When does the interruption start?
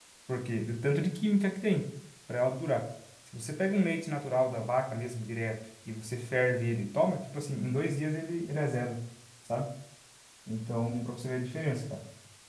none

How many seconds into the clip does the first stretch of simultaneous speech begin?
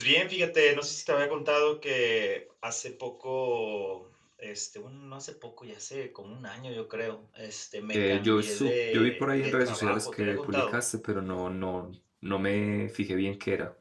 8 s

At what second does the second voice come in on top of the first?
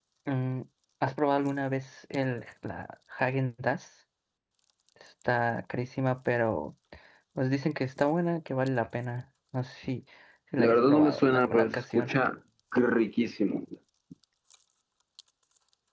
11 s

